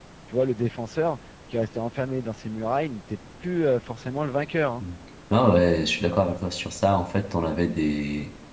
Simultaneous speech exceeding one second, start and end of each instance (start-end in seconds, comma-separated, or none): none